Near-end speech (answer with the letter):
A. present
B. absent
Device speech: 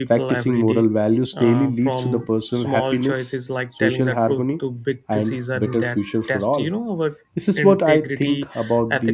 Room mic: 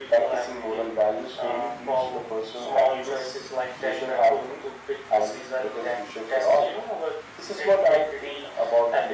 B